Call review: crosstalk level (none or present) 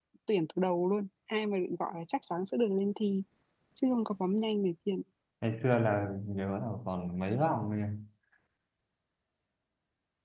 none